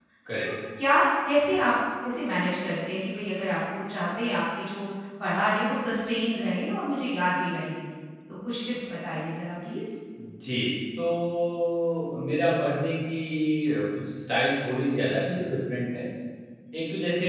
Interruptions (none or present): none